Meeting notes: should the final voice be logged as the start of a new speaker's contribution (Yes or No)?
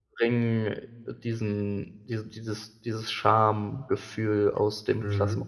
Yes